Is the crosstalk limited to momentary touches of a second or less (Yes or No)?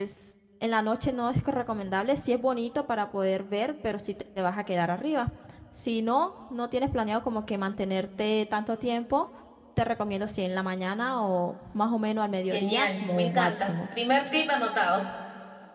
No